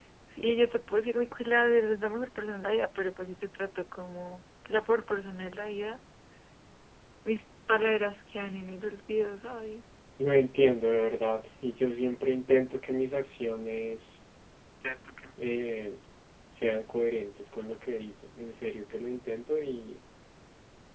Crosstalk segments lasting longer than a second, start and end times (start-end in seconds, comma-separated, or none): none